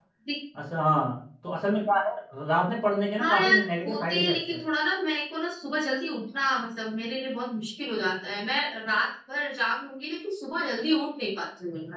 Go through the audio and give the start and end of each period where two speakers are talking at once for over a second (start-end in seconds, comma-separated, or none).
3.2-4.6